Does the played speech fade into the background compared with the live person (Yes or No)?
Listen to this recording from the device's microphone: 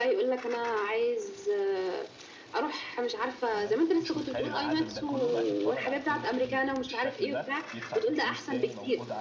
No